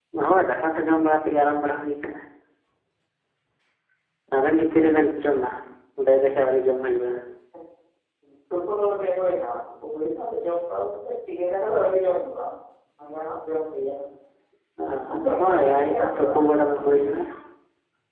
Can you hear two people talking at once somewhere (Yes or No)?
Yes